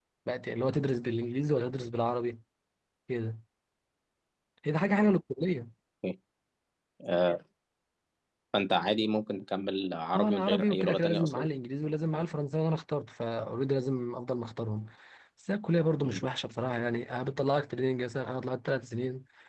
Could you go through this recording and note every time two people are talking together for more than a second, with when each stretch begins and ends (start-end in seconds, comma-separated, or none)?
10.2-11.5